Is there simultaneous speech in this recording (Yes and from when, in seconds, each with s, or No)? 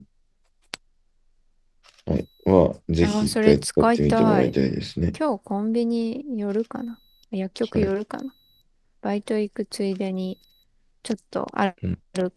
Yes, from 3.0 s